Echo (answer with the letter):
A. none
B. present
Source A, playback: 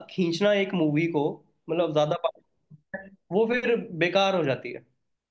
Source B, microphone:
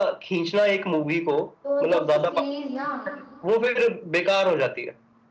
B